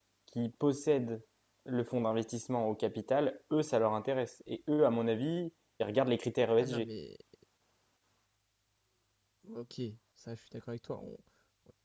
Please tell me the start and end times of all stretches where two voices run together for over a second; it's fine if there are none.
none

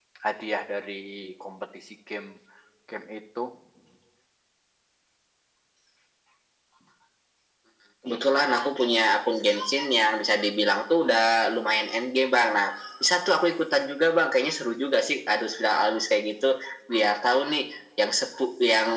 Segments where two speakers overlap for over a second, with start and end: none

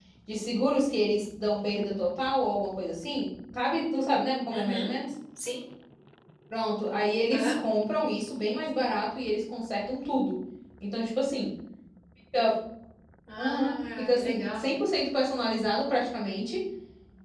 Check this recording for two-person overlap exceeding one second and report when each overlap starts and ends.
13.4-14.7

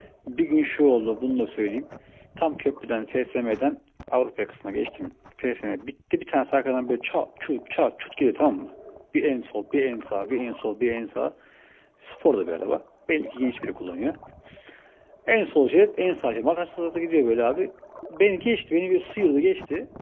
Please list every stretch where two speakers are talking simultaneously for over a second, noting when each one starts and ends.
none

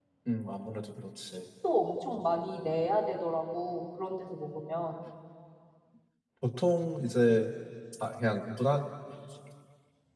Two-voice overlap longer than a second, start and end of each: none

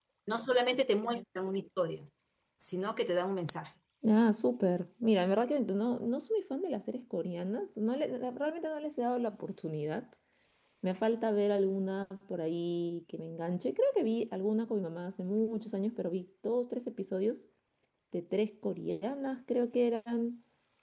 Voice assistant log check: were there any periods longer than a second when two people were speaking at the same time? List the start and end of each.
none

